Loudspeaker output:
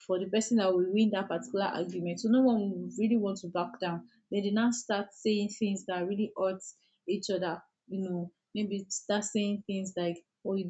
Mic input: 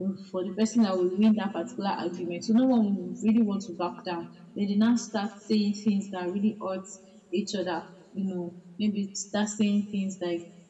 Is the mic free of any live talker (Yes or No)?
Yes